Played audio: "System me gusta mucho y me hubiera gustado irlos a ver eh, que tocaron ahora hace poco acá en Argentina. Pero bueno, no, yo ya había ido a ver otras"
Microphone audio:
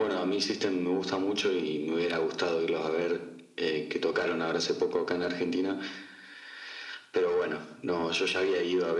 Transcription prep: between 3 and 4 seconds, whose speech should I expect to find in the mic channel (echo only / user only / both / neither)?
echo only